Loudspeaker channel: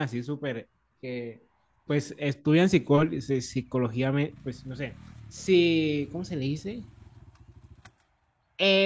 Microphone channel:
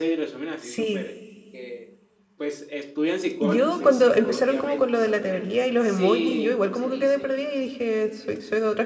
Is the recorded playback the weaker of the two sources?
Yes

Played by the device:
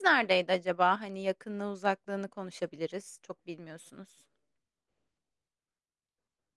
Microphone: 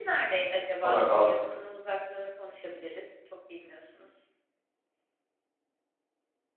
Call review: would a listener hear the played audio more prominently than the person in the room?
No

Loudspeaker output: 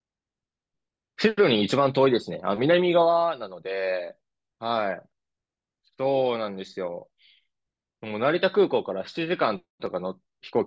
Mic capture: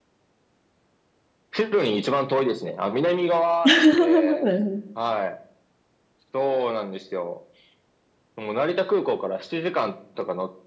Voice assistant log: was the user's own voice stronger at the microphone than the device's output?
Yes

